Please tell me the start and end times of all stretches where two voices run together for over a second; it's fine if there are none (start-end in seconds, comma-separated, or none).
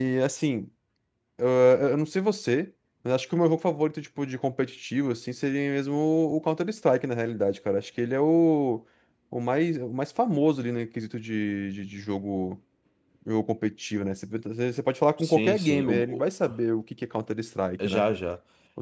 15.2-16.5